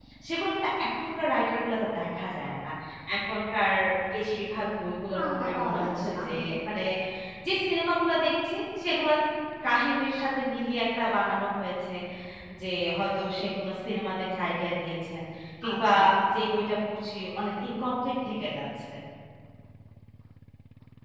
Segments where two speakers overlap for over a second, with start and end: 5.1-6.5

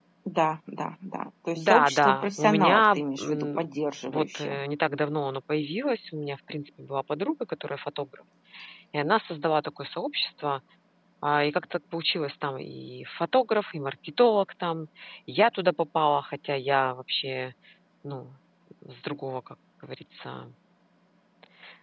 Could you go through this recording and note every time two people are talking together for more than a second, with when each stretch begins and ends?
1.6-3.7

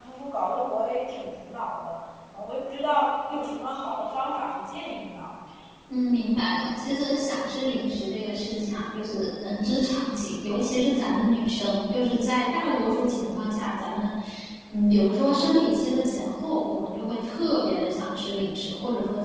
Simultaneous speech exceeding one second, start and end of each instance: none

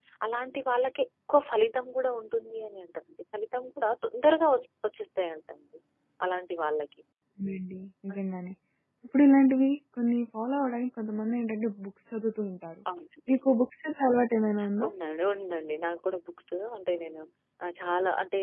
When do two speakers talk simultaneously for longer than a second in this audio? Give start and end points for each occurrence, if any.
none

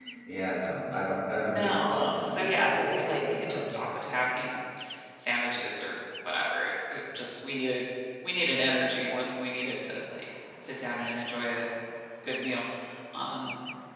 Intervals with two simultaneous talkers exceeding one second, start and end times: 1.5-3.7

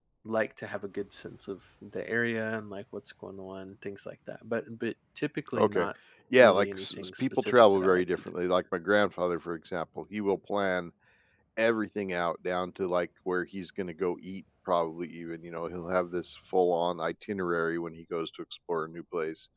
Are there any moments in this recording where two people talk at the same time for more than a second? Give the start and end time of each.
6.4-8.3

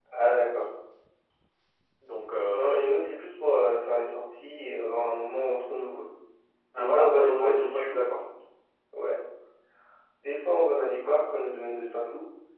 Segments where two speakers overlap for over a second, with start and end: 6.8-8.0

